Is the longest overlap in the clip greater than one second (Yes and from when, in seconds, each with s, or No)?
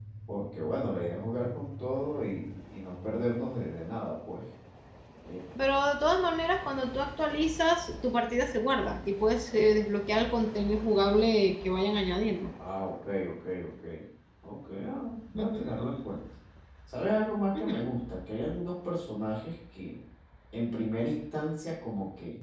No